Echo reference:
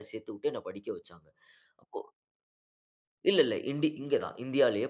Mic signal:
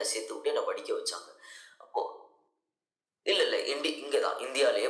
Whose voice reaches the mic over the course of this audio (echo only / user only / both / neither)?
echo only